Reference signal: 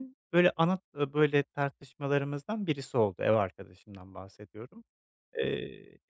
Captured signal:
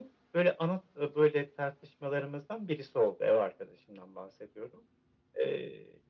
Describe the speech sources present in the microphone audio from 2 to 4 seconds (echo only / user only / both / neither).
echo only